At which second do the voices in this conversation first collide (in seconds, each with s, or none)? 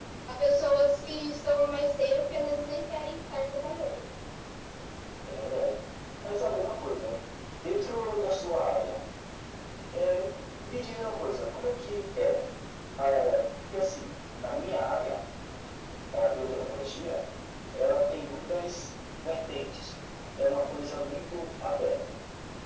none